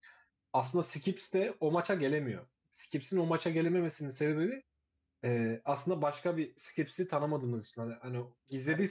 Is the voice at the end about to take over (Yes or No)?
No